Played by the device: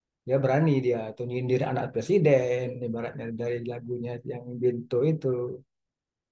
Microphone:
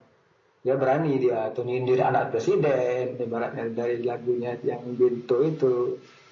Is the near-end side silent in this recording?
Yes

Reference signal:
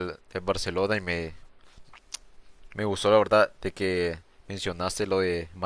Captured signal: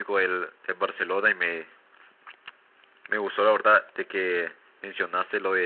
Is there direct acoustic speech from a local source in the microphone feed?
No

